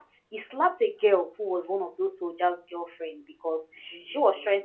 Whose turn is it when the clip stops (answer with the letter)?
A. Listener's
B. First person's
B